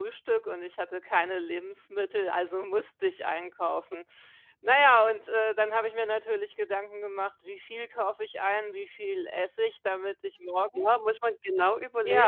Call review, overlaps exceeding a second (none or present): none